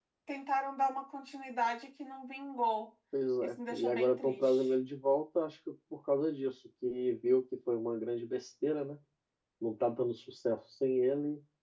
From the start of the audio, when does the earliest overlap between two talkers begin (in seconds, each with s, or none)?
3.4 s